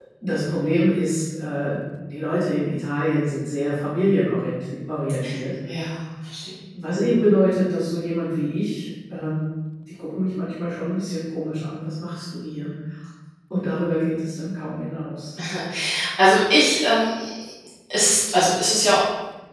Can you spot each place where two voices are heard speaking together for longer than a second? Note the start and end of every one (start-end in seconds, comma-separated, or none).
none